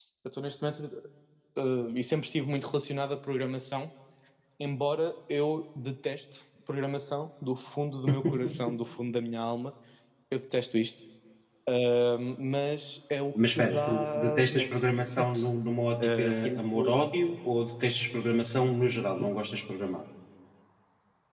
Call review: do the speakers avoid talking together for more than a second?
No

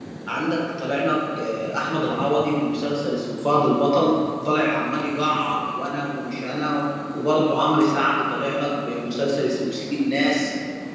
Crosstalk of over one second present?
No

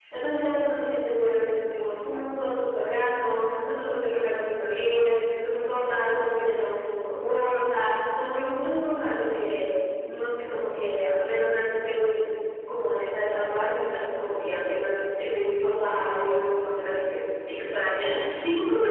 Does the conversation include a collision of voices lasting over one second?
No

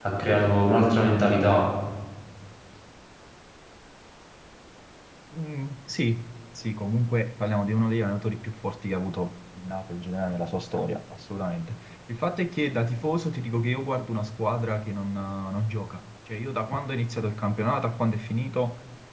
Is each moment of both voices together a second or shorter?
Yes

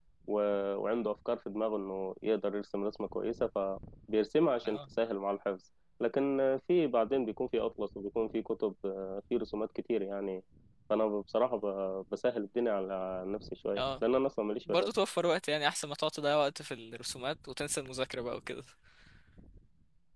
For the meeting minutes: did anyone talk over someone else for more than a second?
No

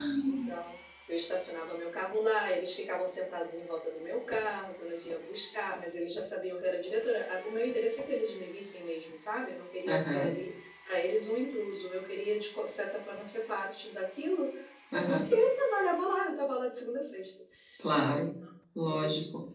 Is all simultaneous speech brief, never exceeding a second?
Yes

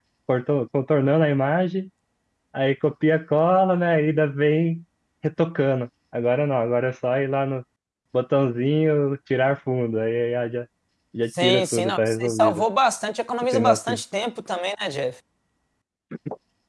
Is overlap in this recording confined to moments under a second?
No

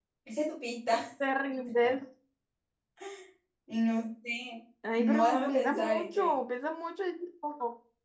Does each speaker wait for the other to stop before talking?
No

